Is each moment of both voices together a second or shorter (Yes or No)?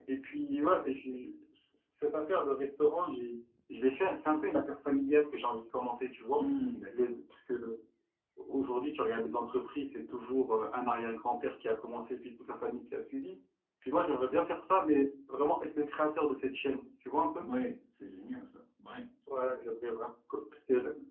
Yes